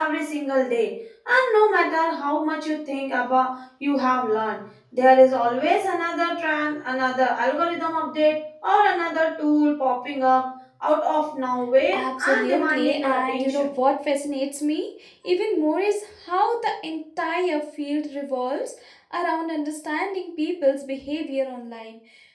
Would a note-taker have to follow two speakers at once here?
Yes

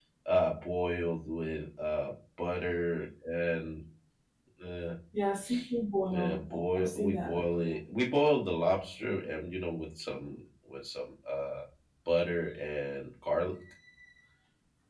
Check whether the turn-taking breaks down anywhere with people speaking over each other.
Yes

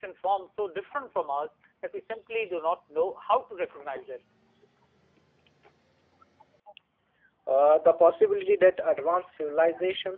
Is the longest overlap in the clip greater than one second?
No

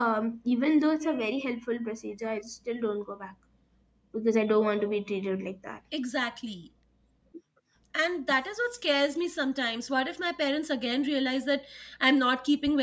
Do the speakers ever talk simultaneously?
No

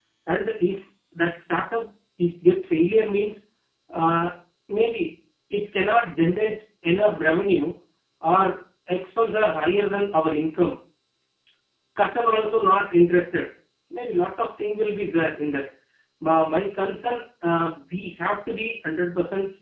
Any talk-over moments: No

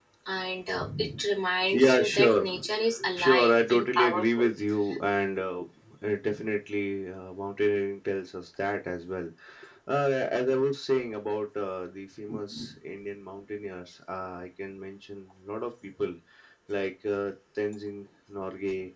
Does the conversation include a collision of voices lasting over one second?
Yes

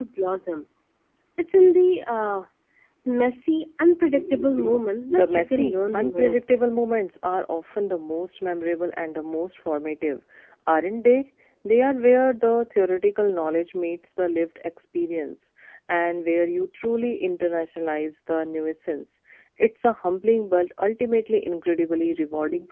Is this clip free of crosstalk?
No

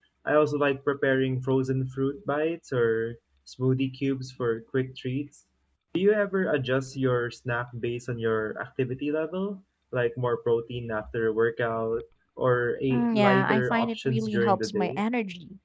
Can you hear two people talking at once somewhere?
Yes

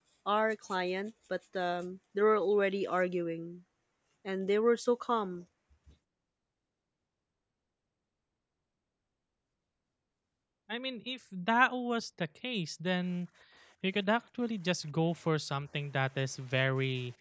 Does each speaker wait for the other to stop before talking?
Yes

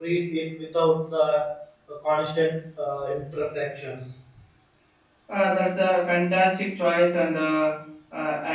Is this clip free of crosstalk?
Yes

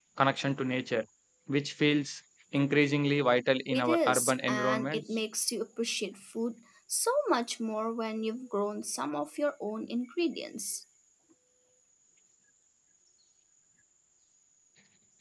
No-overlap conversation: No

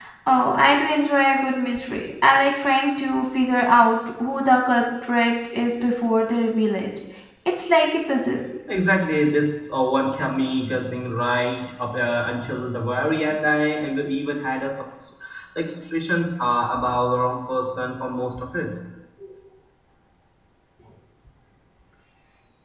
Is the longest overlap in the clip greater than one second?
No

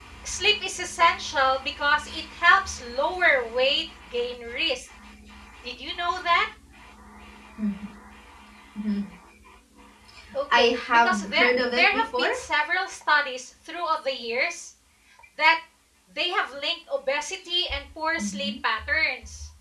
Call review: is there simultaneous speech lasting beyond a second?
Yes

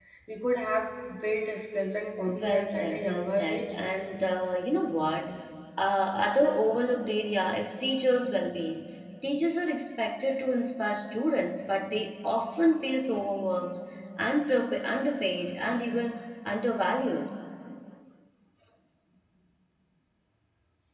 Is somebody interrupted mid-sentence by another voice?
Yes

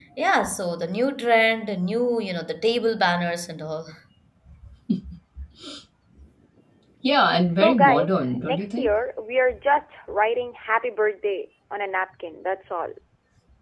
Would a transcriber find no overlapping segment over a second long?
No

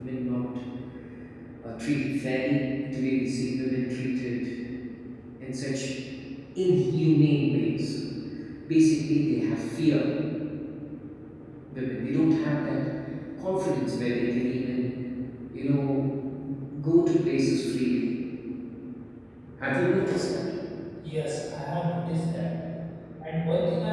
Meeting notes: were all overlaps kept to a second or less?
Yes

